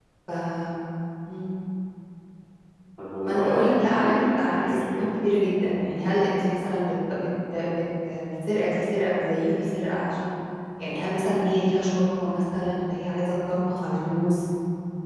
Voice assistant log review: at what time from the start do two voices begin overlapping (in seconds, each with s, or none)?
3.2 s